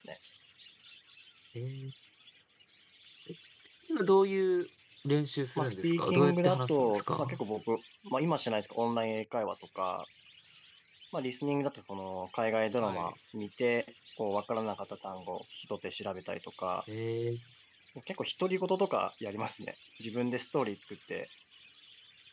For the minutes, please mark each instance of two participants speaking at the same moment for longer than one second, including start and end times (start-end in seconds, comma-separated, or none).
5.6-7.4